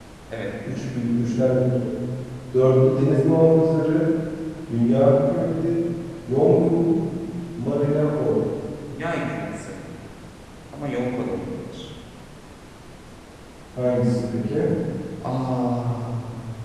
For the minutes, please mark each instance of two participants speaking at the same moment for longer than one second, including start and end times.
none

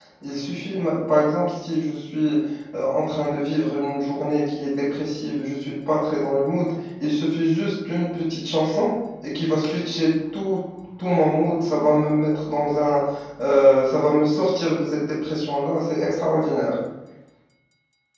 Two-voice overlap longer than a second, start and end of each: none

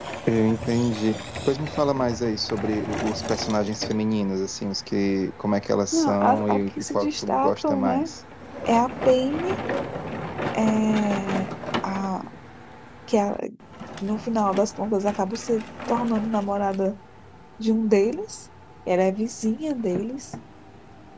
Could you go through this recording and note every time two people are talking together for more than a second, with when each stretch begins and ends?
5.9-8.1

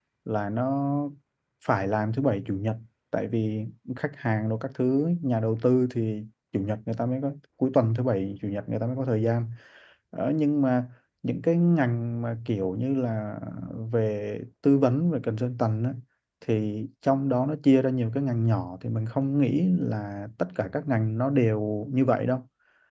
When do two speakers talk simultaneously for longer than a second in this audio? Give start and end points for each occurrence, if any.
none

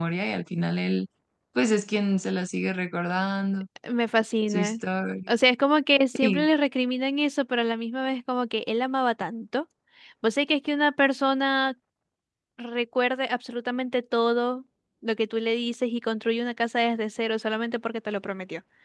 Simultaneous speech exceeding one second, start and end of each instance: none

